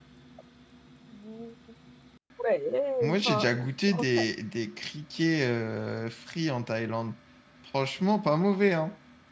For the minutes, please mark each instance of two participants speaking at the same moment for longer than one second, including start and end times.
3.0-4.2

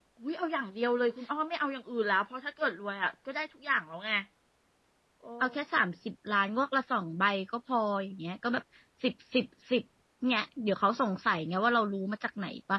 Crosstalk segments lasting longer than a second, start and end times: none

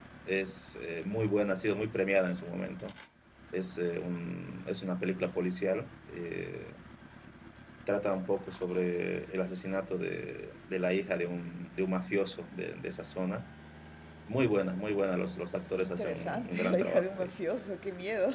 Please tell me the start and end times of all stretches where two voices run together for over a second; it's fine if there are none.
15.8-17.4

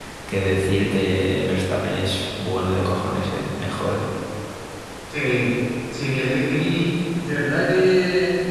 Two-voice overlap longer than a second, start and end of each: none

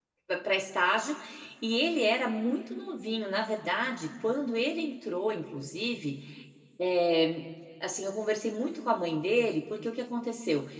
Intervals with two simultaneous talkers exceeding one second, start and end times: none

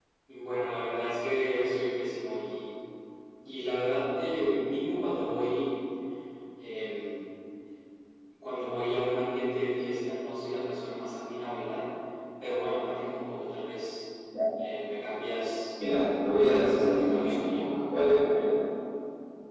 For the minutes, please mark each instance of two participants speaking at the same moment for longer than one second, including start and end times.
16.4-17.8

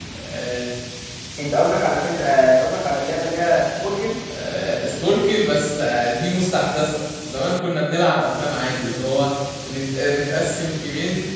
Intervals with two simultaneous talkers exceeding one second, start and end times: none

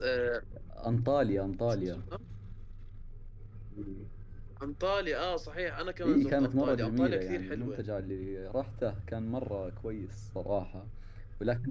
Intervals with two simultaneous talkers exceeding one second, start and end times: 6.0-7.8

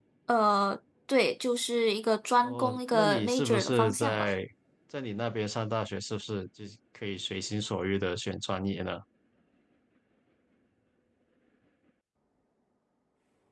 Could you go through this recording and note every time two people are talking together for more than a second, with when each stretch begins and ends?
2.4-4.3

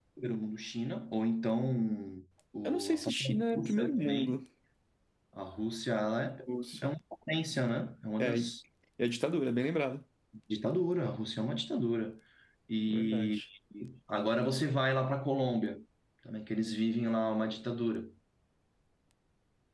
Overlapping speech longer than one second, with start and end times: 2.6-4.4

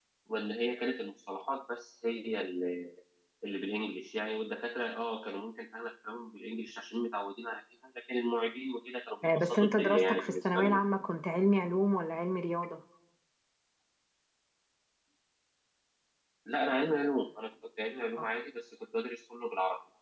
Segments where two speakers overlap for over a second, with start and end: 9.2-10.6

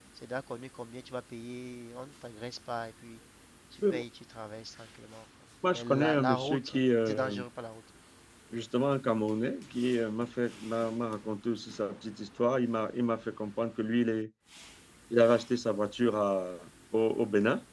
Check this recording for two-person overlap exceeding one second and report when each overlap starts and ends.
5.7-7.4

